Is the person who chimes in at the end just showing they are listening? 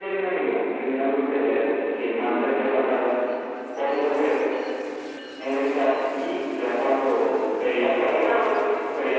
Yes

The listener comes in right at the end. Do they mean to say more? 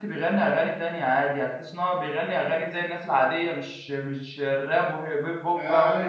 Yes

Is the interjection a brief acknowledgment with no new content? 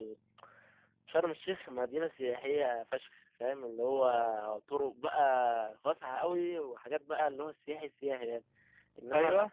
Yes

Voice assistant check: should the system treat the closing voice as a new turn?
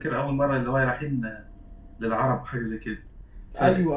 No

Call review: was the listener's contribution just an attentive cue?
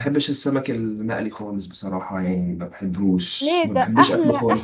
No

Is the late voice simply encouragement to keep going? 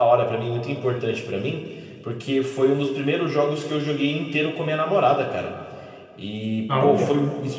Yes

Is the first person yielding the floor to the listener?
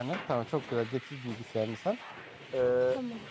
No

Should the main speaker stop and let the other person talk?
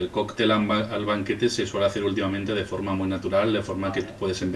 No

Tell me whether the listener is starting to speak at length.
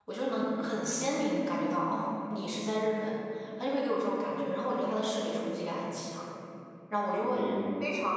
No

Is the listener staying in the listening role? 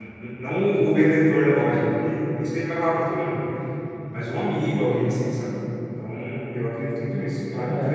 No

